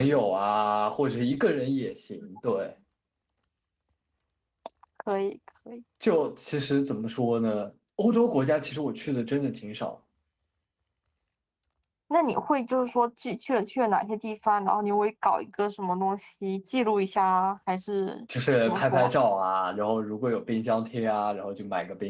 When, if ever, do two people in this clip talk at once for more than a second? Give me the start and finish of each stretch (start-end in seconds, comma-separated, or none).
none